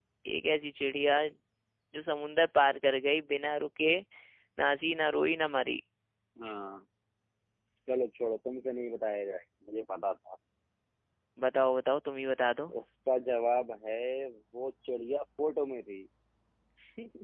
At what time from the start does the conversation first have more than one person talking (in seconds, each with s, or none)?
none